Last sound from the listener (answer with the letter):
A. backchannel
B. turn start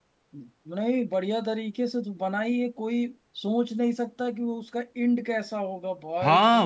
B